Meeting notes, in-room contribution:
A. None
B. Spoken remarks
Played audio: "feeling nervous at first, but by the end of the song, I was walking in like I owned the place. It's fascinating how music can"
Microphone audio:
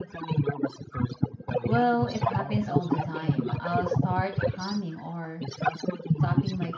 B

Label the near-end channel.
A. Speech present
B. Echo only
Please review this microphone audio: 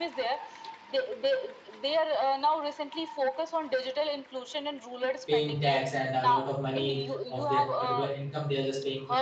A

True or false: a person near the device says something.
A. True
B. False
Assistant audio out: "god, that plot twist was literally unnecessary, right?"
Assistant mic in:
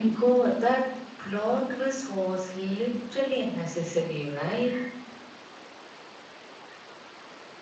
B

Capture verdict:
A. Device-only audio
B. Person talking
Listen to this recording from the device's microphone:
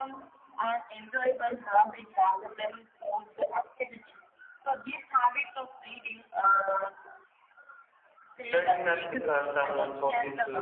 B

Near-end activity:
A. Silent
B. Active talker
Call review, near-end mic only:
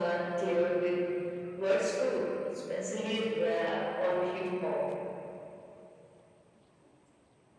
A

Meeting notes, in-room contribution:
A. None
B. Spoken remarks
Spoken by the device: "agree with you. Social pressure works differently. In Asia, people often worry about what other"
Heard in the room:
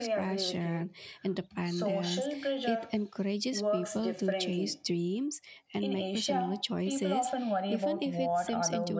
B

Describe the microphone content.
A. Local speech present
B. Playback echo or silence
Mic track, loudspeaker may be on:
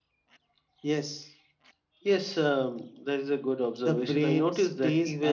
B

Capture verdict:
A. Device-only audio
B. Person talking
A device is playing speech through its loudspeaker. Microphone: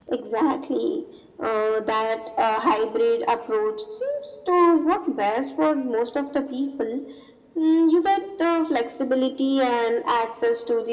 A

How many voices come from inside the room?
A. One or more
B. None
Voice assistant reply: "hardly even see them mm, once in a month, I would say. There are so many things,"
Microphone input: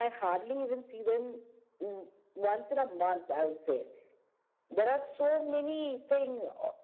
B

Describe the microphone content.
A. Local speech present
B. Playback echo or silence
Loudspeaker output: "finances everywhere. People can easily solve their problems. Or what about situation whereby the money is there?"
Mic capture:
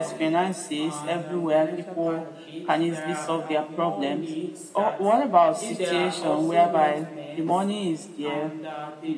A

